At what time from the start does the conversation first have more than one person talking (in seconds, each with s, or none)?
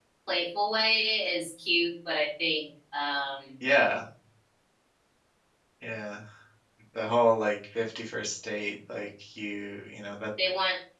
none